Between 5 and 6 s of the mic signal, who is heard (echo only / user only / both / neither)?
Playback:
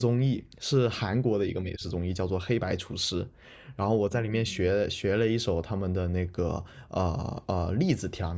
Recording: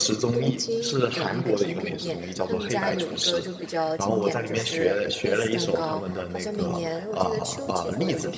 both